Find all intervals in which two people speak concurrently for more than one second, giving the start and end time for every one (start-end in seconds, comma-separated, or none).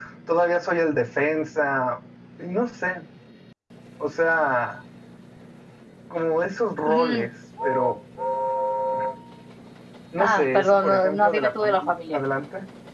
10.2-12.2